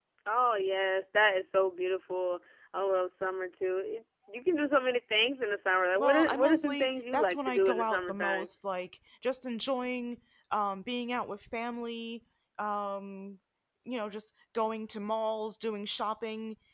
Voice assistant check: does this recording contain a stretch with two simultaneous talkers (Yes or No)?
Yes